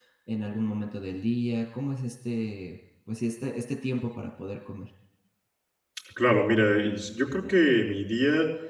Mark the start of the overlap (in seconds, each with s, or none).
none